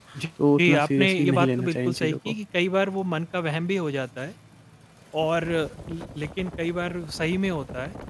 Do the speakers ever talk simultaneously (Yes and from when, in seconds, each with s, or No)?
Yes, from 0.6 s